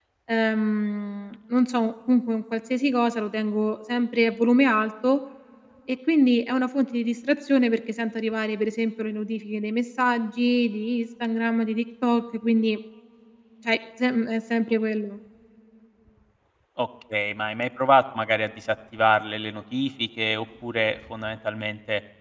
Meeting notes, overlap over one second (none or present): none